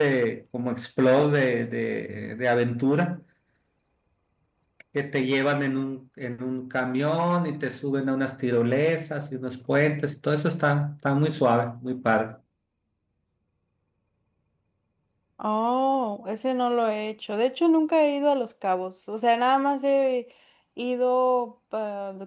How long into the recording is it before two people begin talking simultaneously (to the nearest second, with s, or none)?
none